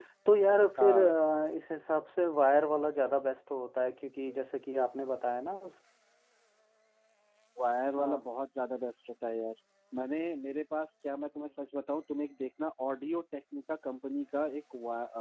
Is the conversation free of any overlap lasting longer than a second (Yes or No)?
Yes